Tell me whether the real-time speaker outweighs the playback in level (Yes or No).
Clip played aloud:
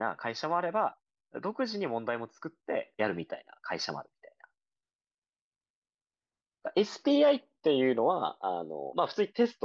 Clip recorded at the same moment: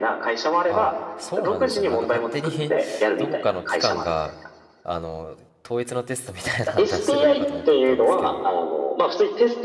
No